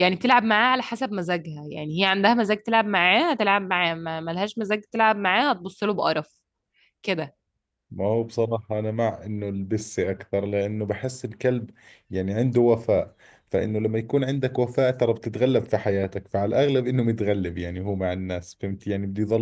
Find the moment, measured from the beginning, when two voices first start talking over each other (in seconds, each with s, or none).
none